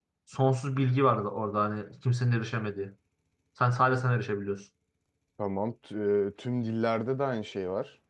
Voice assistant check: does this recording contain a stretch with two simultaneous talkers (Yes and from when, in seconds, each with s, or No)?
No